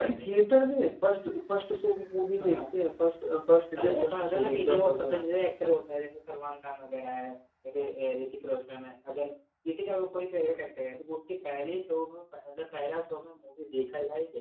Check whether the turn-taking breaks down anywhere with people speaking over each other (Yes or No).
Yes